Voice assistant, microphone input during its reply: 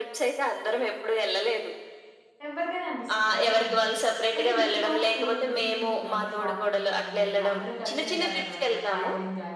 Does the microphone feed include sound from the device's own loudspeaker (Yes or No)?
Yes